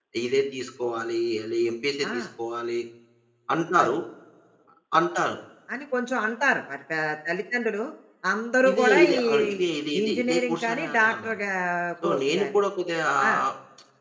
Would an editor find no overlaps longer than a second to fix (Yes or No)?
No